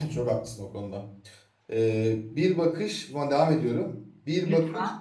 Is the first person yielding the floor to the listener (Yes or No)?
No